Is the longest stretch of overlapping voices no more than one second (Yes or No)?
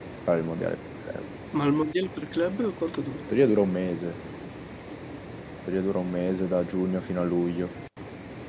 Yes